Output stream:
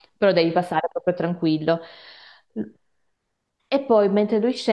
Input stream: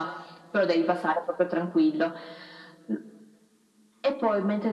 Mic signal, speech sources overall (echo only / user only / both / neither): echo only